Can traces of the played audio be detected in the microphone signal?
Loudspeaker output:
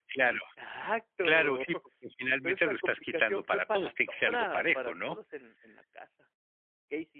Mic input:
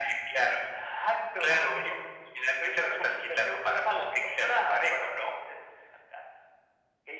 Yes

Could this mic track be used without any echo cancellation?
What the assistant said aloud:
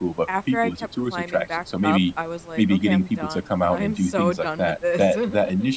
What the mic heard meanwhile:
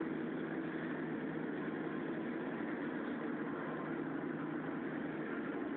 Yes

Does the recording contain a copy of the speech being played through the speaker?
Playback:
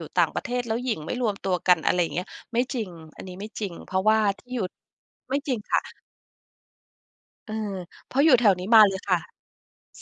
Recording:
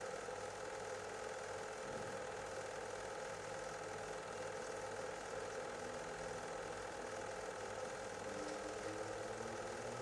No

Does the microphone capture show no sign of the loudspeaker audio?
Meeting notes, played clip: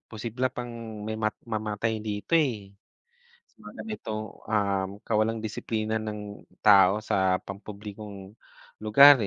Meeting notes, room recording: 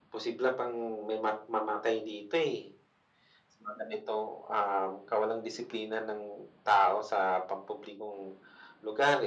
No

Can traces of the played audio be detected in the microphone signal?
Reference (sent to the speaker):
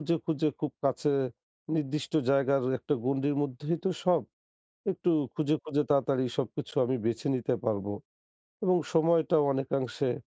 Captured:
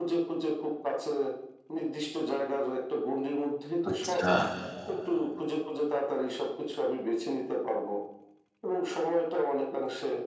Yes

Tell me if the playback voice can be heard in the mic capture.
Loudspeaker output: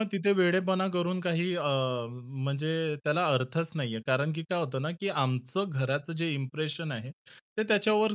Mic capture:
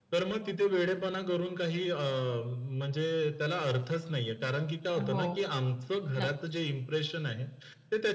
Yes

